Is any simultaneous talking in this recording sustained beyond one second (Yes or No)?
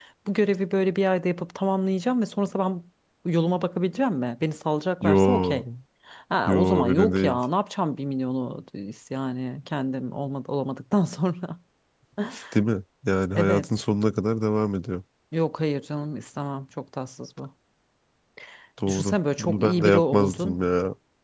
Yes